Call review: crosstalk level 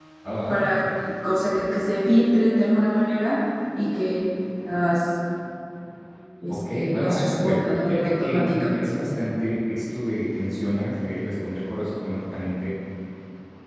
present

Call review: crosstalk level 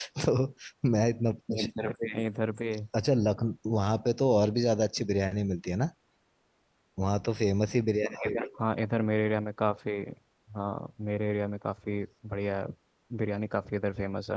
none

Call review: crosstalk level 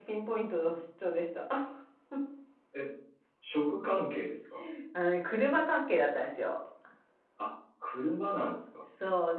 none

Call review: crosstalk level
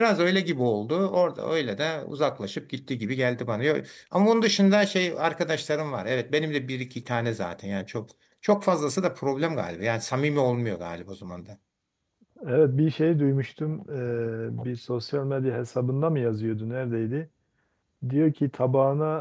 none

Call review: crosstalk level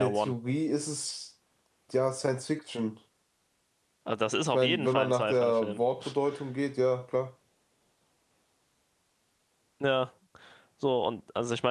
present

